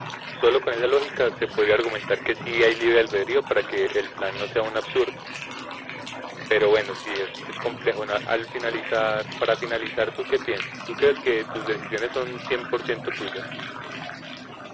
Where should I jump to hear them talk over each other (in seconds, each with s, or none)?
none